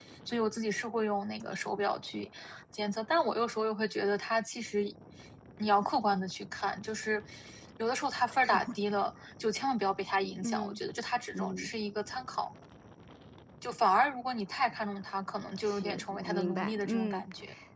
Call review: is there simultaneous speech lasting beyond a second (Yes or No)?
Yes